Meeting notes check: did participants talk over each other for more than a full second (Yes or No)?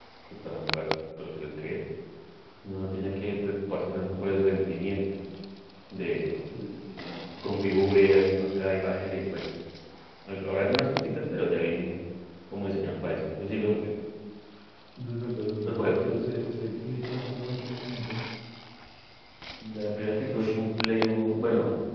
No